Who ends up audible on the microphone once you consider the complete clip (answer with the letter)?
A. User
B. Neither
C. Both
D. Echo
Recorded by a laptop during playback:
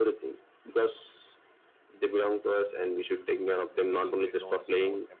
C